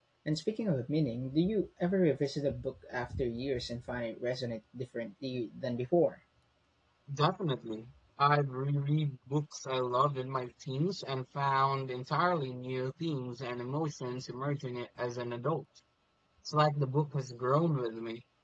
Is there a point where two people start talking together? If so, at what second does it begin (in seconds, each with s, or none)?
none